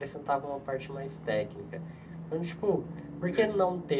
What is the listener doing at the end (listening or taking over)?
listening